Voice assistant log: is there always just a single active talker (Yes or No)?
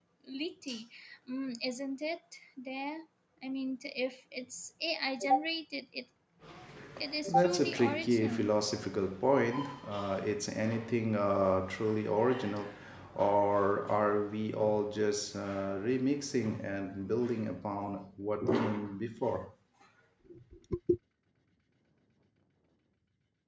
No